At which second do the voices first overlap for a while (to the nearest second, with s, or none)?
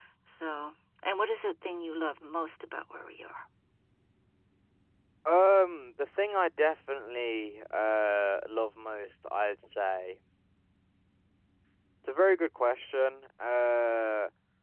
none